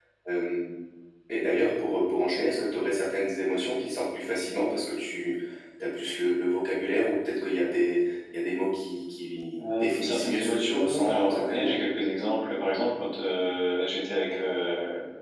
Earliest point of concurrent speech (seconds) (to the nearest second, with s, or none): 10 s